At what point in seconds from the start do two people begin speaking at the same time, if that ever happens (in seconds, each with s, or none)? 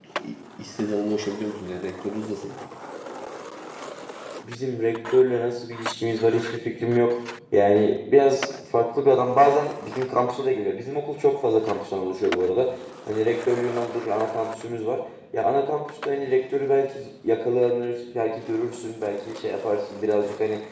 none